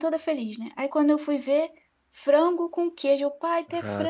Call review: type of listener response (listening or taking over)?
listening